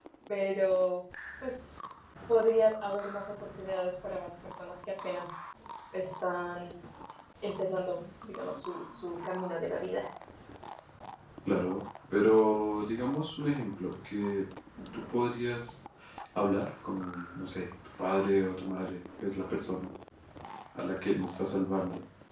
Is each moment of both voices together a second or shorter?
Yes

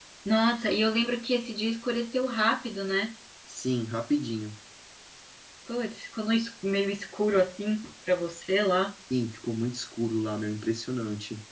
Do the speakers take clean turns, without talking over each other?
Yes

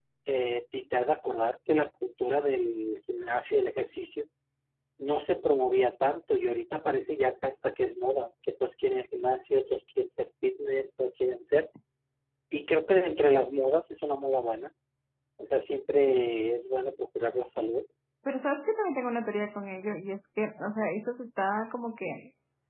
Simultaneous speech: No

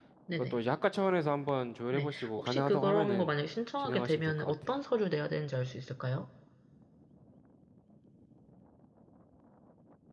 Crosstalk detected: Yes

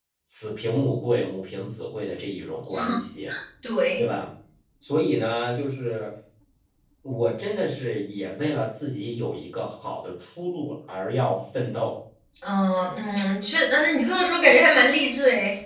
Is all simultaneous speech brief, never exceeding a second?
Yes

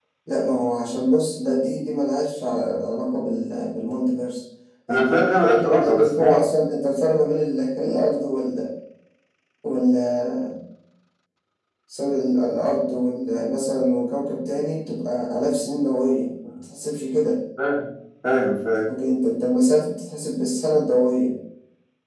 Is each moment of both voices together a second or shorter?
No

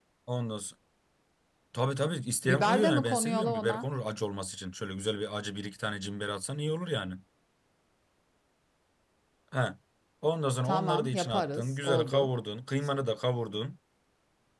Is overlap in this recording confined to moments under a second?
No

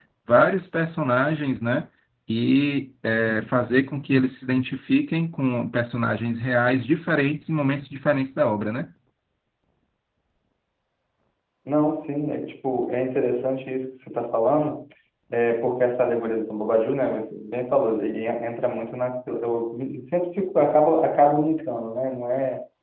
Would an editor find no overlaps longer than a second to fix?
Yes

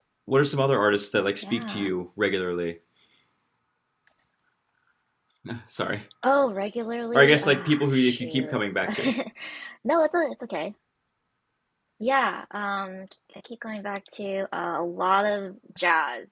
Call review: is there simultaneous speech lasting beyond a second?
Yes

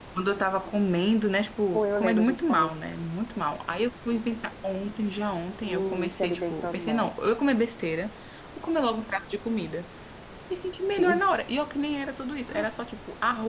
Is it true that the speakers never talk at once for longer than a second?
No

